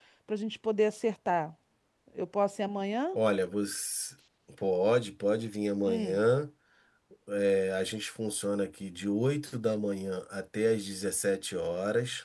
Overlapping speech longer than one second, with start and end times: none

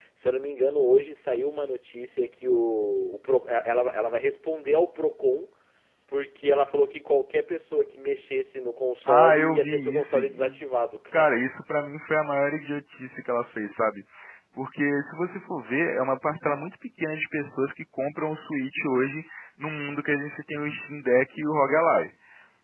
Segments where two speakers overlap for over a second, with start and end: 9.1-10.5

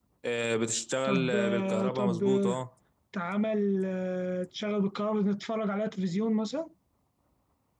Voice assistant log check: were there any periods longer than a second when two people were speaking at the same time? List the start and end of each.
1.0-2.6

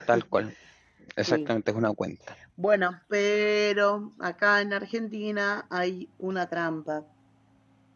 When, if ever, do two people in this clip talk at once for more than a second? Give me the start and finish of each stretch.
none

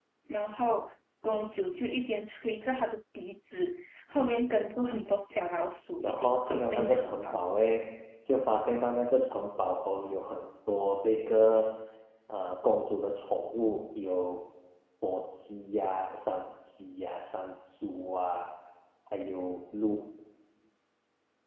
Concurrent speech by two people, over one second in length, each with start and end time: 6.0-7.4

